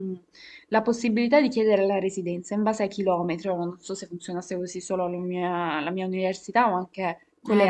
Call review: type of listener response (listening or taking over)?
taking over